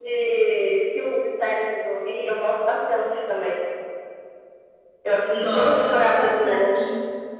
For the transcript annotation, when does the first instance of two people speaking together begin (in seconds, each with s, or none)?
5.3 s